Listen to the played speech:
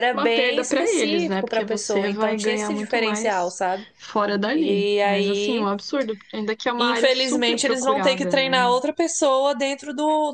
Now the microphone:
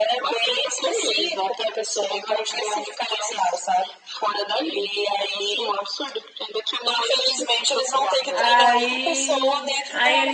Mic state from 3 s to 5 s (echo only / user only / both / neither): echo only